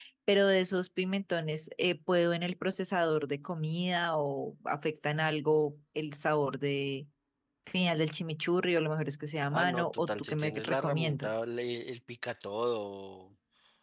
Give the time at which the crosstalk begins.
10 s

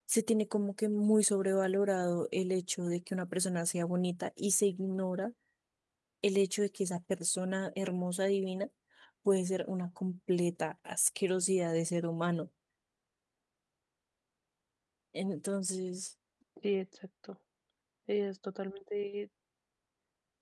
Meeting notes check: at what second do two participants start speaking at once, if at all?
none

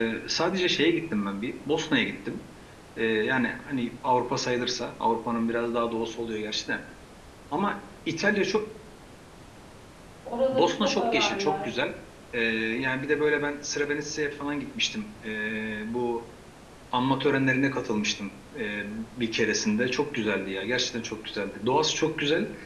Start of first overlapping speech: 11 s

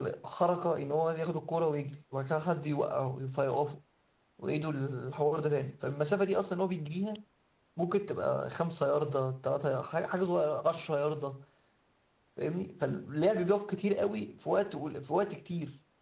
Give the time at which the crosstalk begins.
none

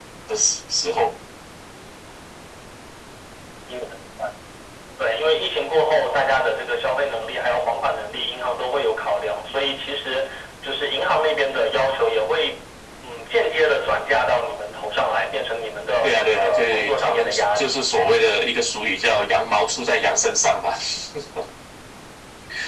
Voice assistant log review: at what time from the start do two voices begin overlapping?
16 s

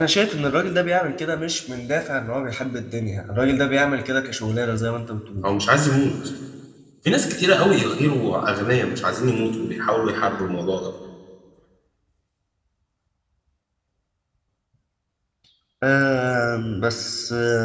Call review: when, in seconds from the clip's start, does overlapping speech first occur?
none

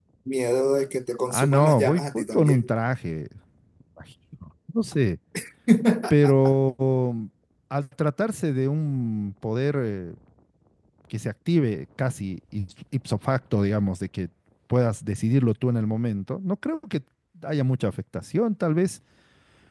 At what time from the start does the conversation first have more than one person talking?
1 s

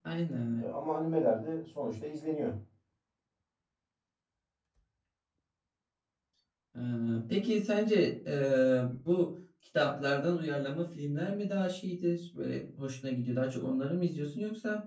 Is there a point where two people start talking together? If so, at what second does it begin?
none

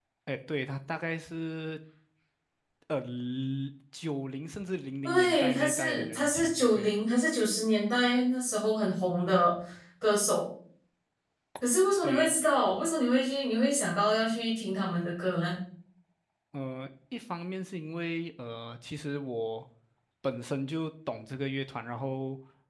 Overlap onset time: 5 s

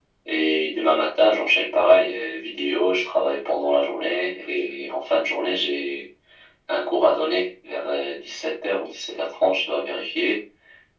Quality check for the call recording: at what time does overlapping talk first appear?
none

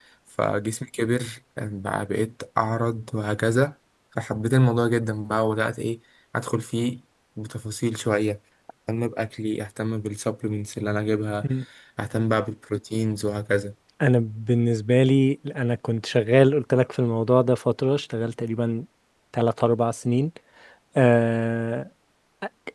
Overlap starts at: none

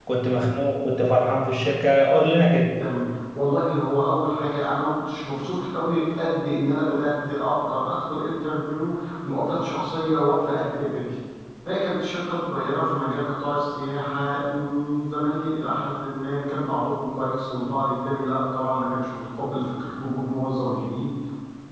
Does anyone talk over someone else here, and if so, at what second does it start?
none

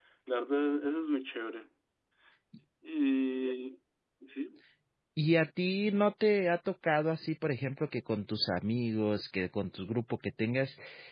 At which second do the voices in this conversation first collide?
none

